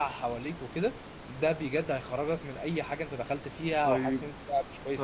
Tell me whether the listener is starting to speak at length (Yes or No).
Yes